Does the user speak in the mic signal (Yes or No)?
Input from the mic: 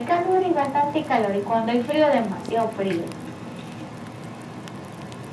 No